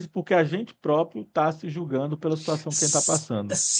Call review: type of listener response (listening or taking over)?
taking over